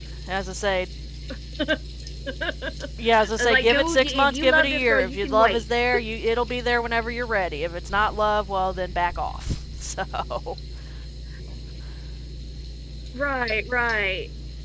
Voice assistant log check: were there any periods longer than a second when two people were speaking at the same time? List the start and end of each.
3.1-5.6

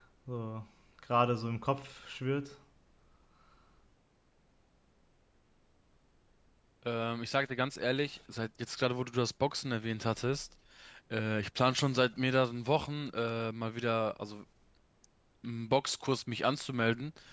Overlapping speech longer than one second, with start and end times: none

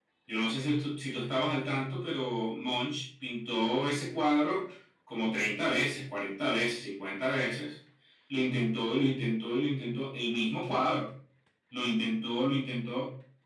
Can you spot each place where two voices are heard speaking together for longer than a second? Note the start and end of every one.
none

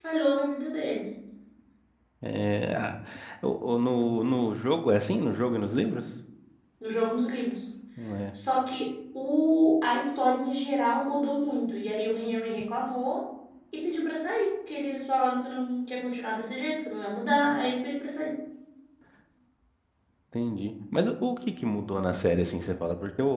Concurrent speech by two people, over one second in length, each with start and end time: none

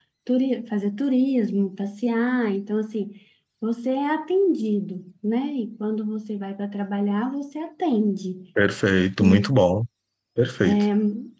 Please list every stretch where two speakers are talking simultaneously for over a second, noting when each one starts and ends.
none

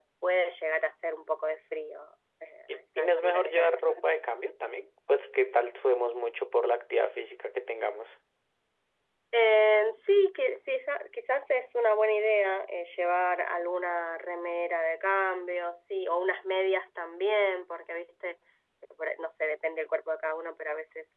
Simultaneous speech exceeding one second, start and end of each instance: 2.7-4.1

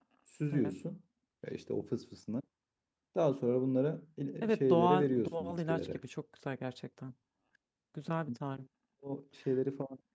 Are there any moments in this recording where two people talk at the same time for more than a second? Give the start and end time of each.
4.4-6.0

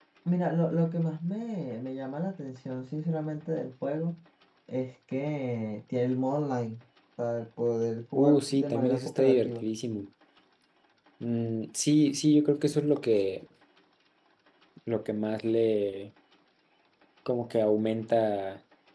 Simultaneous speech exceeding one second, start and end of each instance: 8.2-9.7

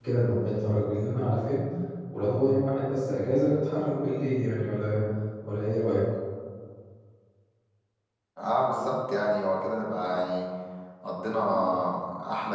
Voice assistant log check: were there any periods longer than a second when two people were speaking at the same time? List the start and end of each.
none

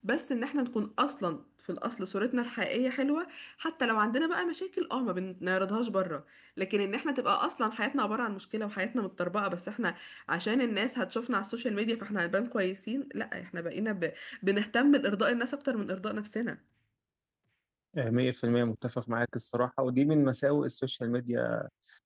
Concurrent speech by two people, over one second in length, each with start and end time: none

